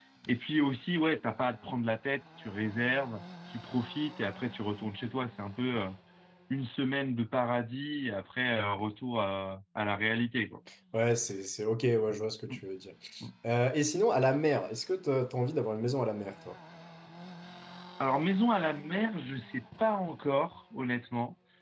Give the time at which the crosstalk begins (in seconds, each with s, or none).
none